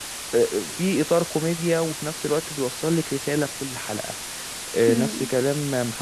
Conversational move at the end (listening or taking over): listening